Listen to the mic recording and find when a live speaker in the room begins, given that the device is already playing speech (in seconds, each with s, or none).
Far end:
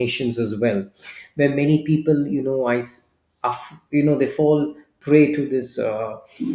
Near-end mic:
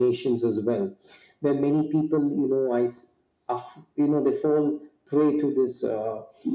none